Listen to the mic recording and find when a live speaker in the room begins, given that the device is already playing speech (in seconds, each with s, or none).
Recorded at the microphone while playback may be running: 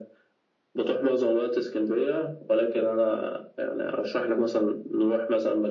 none